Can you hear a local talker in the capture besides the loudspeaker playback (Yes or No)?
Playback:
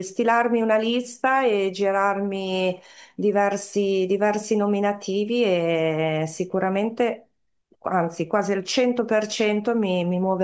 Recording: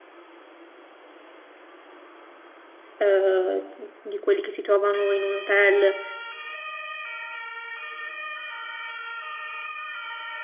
Yes